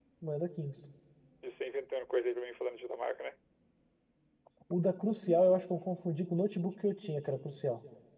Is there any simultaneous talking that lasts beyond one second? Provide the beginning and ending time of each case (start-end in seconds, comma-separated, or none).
none